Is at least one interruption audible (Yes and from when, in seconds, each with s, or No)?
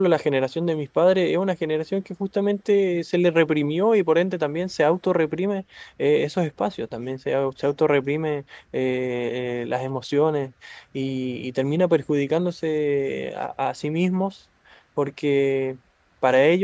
No